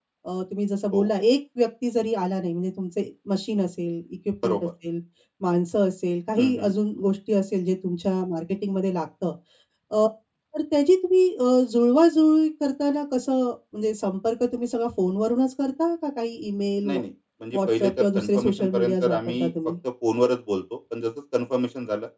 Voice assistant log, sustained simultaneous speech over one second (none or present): present